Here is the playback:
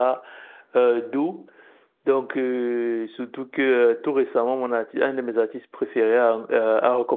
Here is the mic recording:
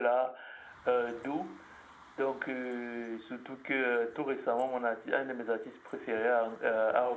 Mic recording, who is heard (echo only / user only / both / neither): echo only